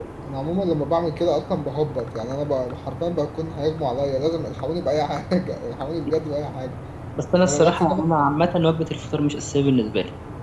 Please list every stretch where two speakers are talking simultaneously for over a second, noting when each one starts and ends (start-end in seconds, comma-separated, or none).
none